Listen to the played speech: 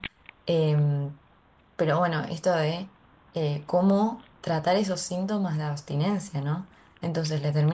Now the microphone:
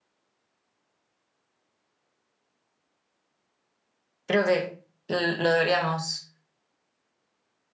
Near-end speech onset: 4.2 s

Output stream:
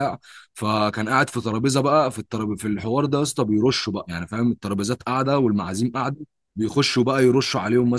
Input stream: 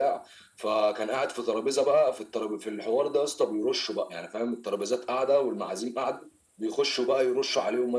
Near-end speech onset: none

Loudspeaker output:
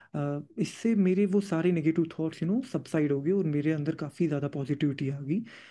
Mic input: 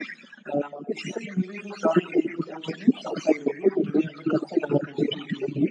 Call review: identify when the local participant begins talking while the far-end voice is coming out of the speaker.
none

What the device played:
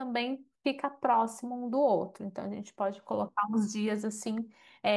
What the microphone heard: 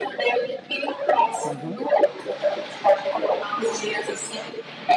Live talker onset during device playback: 1.4 s

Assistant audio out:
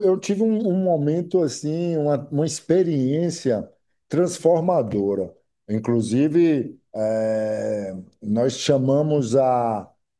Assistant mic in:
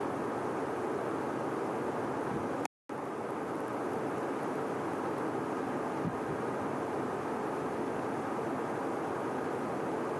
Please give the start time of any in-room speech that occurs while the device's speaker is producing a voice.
none

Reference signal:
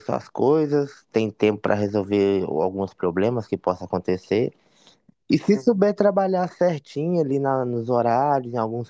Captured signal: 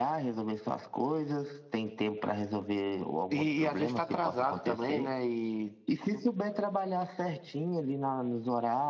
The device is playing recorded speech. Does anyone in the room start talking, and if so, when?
3.3 s

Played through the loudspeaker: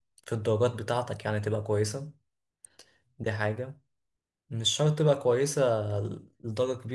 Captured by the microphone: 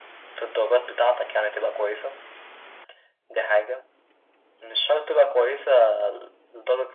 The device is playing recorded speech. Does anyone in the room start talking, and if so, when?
none

